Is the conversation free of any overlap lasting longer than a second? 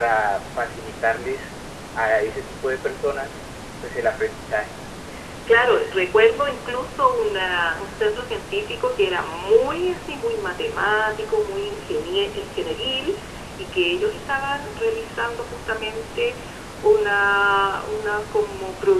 Yes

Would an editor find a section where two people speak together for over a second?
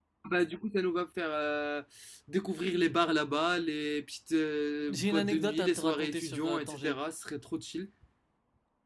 Yes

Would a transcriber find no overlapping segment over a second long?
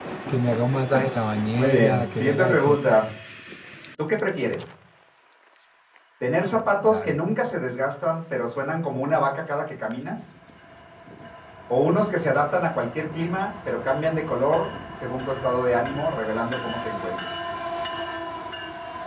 No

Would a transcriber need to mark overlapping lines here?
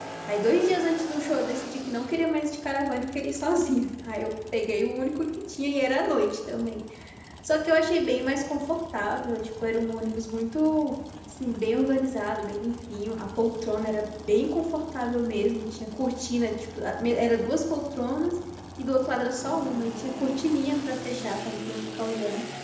No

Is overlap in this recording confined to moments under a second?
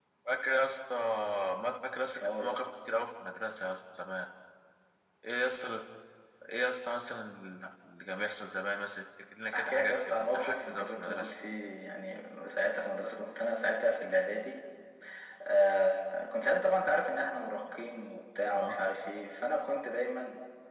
No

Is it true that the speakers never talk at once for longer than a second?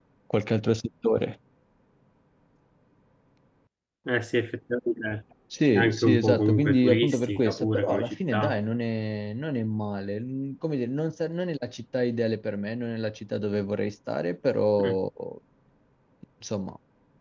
No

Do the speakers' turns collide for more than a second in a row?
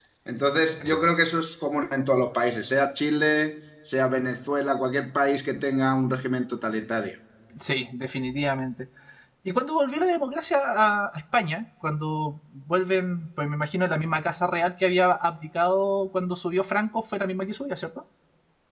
No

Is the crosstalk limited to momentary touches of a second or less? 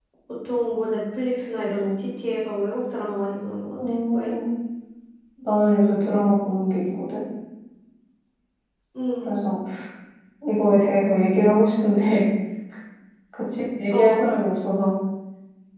Yes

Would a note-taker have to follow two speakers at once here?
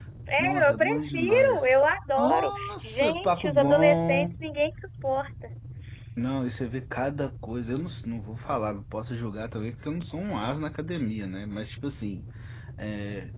Yes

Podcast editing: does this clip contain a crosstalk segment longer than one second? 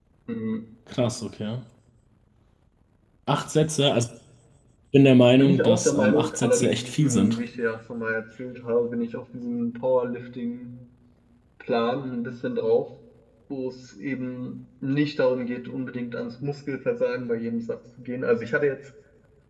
Yes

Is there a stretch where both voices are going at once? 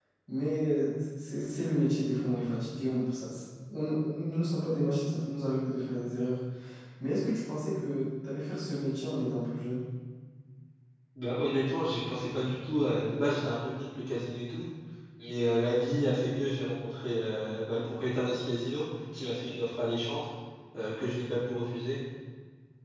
No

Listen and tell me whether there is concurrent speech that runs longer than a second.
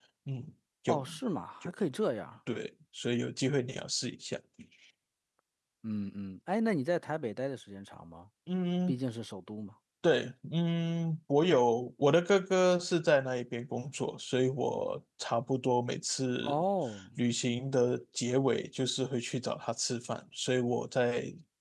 No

